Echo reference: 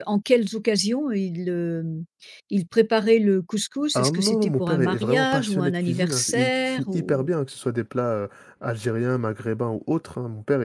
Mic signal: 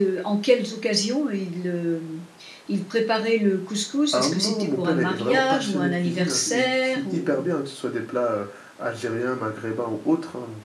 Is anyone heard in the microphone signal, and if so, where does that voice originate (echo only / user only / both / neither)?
echo only